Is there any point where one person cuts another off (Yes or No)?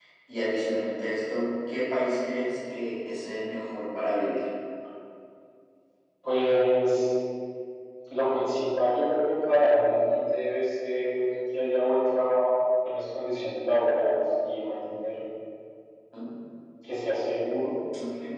No